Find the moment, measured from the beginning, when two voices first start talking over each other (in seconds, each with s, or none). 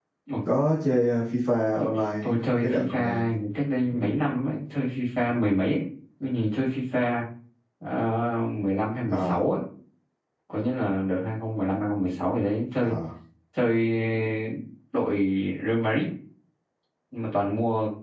1.9 s